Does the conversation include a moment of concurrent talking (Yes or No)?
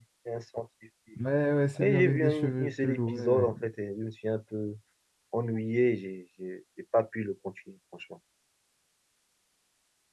Yes